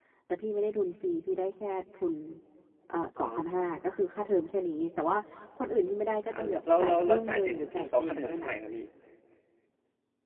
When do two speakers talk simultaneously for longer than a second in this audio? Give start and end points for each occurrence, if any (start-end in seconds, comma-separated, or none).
6.3-8.5